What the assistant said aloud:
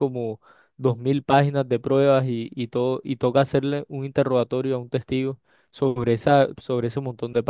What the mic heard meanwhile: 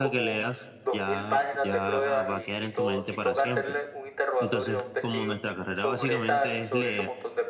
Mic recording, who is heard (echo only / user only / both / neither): both